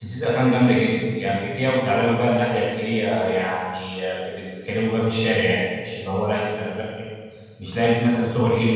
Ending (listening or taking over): listening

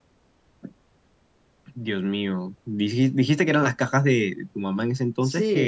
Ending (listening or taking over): taking over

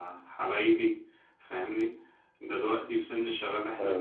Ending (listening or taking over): listening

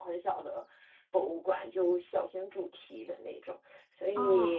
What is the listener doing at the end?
listening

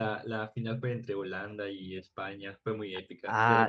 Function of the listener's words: taking over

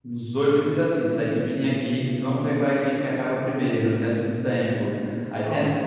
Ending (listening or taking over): listening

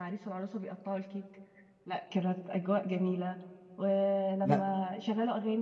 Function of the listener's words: listening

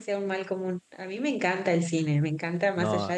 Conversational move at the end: listening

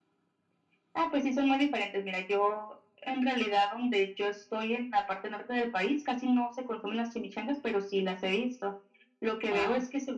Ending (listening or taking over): listening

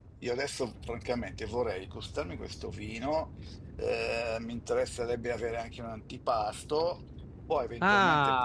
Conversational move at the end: taking over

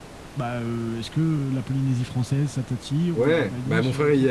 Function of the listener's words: taking over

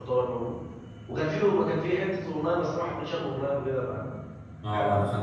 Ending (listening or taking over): taking over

